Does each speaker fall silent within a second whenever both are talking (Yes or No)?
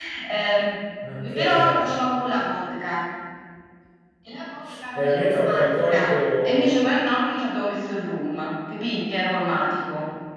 No